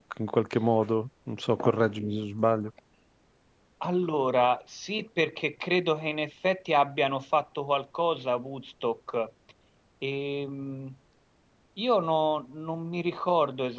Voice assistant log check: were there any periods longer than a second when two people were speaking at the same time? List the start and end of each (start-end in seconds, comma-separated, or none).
none